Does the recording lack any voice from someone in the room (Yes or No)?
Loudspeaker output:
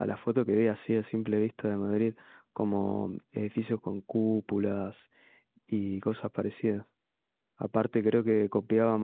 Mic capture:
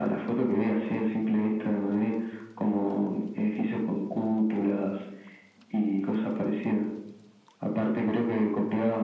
Yes